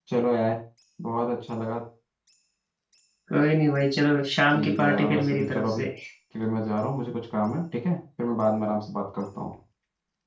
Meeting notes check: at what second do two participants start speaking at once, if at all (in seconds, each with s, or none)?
4.5 s